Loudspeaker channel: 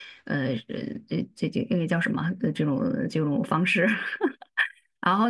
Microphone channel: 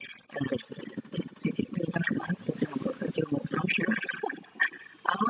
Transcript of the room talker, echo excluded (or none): none